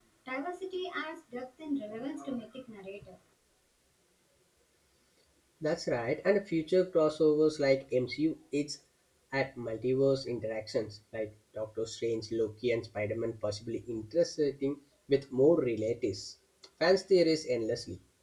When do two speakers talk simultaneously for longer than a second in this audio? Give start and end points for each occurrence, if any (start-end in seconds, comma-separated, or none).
none